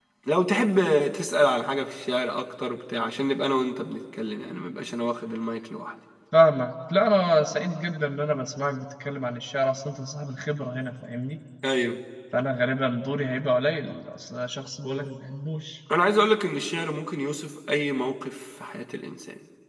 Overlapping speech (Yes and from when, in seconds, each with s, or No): No